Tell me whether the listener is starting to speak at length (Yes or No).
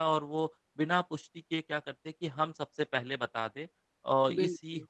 No